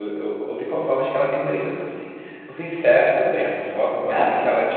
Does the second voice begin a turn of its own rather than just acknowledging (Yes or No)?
No